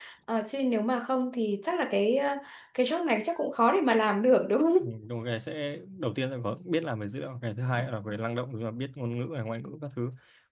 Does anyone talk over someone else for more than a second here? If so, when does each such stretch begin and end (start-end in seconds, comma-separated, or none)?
none